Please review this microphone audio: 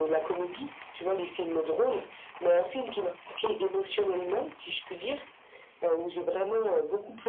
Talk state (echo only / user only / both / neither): echo only